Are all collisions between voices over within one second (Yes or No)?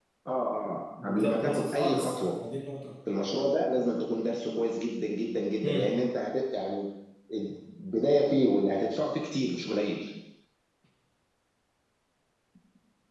No